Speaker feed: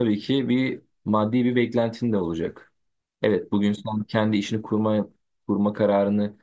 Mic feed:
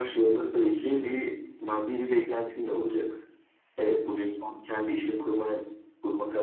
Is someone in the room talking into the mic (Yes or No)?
No